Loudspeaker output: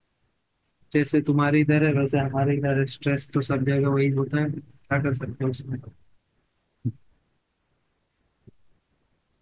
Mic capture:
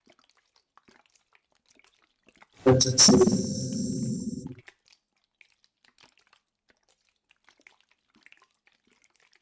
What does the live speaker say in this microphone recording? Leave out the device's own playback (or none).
अच्छा सही